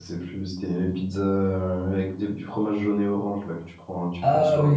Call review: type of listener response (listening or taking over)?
taking over